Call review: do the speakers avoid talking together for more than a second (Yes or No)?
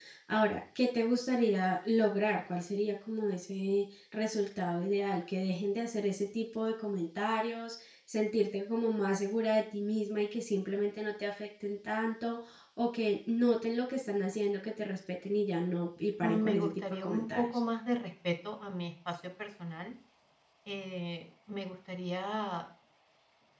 No